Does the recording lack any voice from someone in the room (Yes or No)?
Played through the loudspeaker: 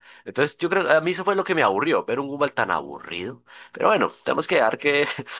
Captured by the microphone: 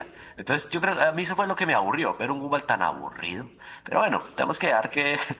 Yes